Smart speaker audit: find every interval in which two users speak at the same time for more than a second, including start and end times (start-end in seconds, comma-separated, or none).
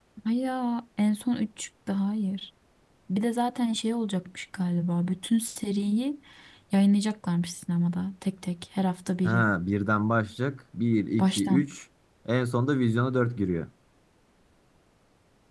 none